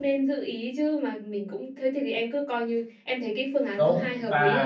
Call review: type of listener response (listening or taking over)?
taking over